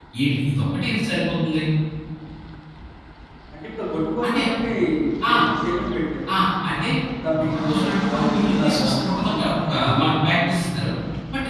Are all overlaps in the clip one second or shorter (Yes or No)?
No